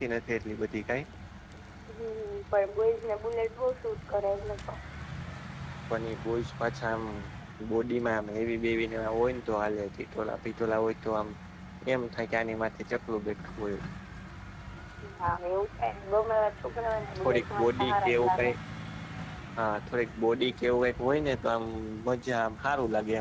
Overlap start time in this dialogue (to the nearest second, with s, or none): 17 s